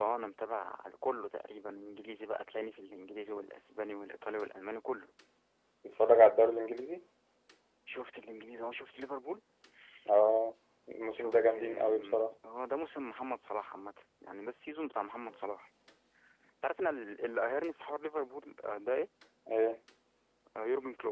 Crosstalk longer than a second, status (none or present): present